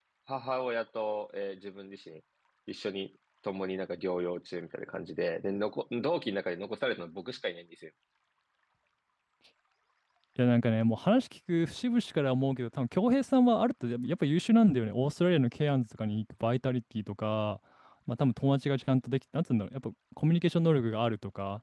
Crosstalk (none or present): none